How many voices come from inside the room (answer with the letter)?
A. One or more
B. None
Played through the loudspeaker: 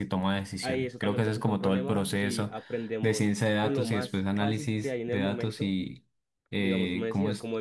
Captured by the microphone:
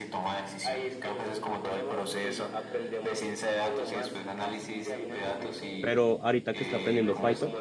A